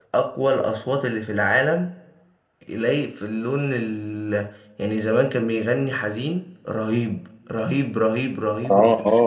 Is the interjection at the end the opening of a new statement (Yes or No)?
Yes